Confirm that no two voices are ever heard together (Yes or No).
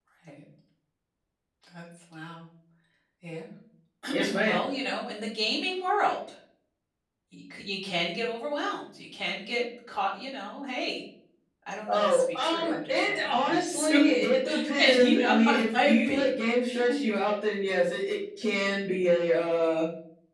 No